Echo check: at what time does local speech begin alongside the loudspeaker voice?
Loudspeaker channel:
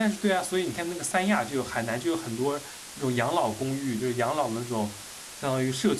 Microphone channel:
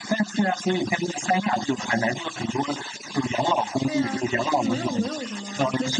3.8 s

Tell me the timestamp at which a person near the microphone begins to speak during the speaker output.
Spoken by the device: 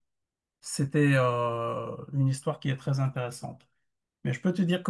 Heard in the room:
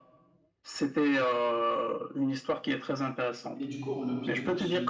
3.5 s

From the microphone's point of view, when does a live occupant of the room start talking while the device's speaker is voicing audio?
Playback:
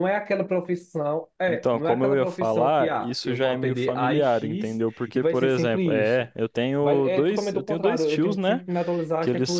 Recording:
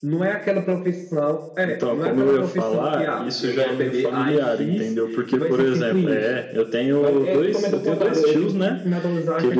none

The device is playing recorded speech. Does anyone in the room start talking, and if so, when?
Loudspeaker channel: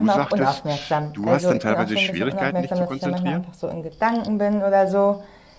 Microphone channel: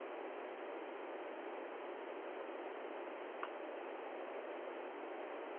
none

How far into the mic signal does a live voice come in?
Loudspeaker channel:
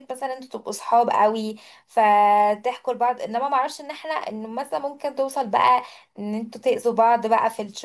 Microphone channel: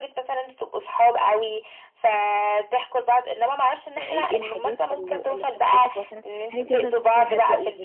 3.9 s

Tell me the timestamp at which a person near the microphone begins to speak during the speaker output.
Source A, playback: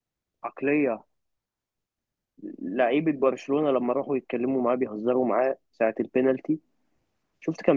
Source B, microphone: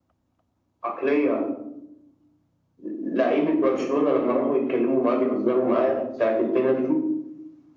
none

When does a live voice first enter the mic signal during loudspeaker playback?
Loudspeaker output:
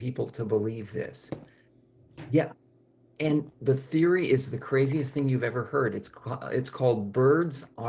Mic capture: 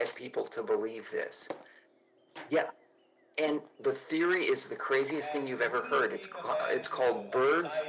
5.2 s

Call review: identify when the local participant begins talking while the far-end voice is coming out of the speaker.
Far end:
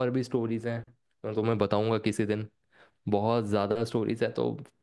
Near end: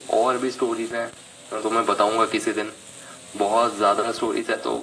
none

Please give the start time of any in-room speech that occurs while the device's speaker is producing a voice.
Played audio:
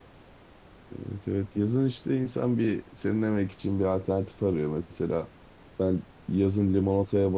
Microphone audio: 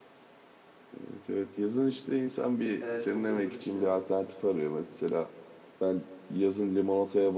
2.8 s

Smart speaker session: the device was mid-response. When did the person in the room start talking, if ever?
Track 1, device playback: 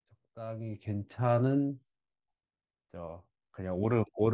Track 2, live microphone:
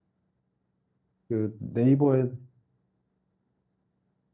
1.3 s

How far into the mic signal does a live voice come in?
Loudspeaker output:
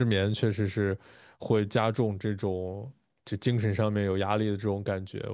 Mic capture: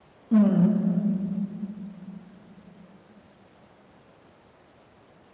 0.3 s

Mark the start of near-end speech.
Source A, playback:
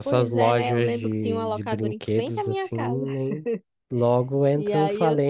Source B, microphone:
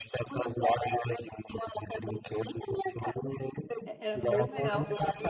3.8 s

